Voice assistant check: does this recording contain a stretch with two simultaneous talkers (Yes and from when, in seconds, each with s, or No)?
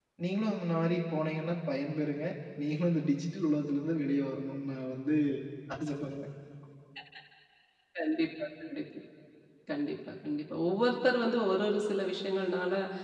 No